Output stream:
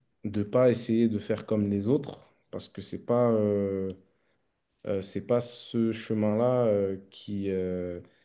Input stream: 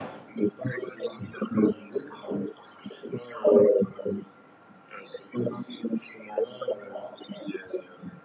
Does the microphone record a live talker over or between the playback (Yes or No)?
No